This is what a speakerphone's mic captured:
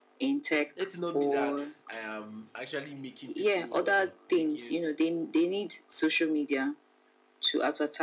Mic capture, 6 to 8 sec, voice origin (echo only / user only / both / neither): echo only